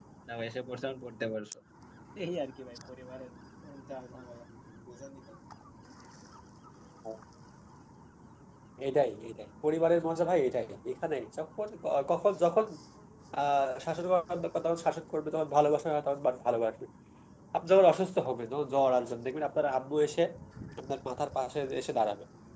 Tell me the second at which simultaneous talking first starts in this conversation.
none

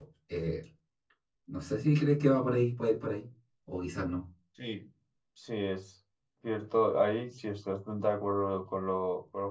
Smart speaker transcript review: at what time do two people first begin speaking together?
none

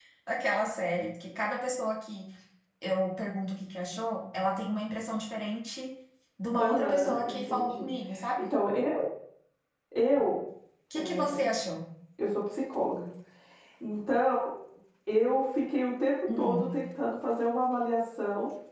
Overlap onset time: 7 s

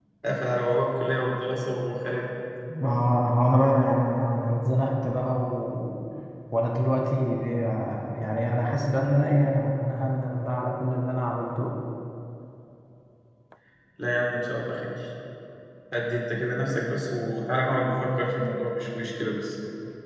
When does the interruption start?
none

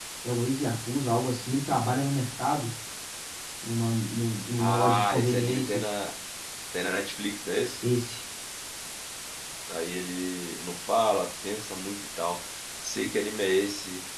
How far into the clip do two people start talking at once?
5 s

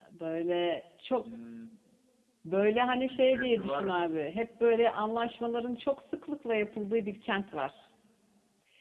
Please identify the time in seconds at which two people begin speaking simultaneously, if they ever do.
3 s

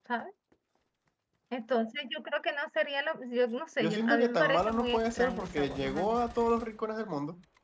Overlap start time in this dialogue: 4 s

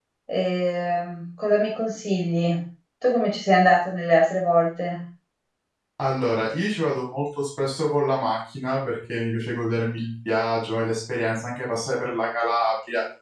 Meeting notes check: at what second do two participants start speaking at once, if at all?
none

